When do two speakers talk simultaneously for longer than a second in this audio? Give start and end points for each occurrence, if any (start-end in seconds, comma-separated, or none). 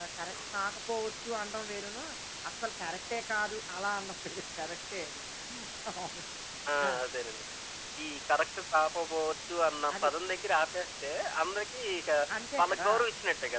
none